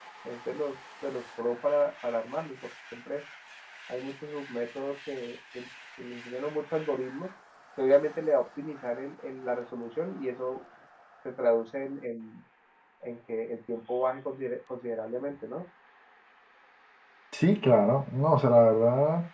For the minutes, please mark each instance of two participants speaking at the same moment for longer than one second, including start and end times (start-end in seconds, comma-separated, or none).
none